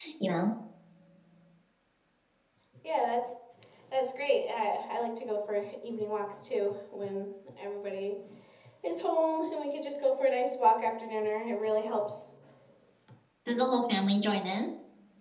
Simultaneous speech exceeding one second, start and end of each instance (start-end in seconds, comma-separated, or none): none